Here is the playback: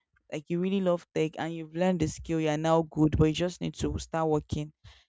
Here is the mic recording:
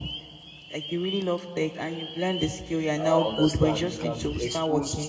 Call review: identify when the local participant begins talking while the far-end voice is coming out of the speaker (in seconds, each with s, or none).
3.0 s